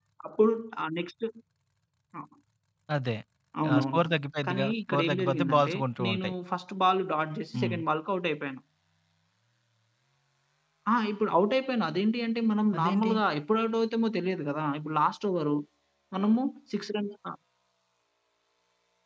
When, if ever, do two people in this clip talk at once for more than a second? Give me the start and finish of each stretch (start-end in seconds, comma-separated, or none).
4.5-6.3